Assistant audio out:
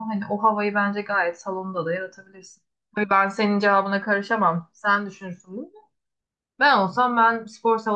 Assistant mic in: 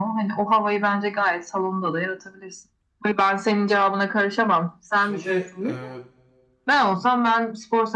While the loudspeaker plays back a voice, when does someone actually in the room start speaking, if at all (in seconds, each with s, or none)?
5.0 s